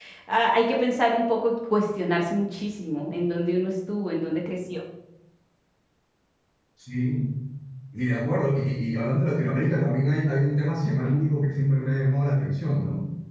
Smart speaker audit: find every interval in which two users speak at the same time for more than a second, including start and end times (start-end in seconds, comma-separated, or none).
none